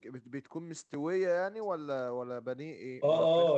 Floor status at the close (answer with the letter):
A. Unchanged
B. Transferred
B